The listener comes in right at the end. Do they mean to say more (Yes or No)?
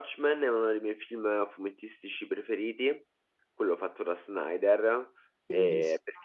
No